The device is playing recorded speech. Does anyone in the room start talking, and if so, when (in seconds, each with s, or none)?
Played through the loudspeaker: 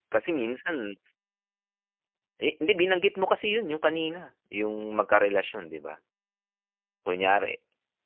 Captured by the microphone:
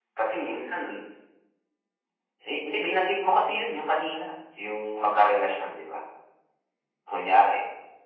none